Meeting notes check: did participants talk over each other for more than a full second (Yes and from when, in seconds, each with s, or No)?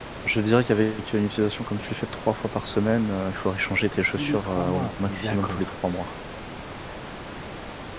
Yes, from 4.2 s